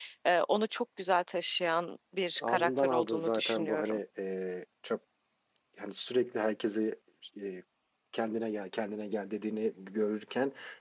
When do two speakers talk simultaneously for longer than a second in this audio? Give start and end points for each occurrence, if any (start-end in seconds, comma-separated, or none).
2.5-4.0